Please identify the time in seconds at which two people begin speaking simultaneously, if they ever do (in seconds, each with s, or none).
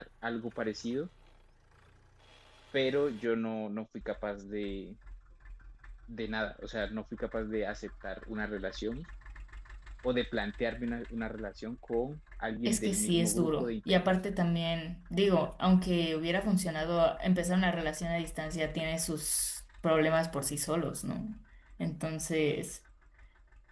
12.6 s